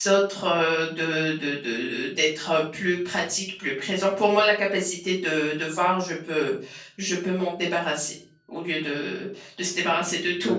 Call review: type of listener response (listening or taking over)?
taking over